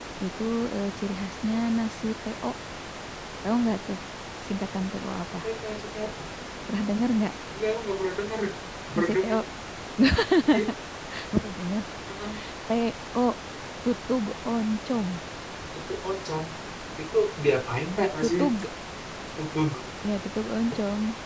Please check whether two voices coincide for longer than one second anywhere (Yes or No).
No